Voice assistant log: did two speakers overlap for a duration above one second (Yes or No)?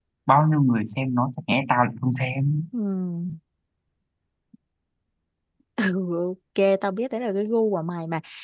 No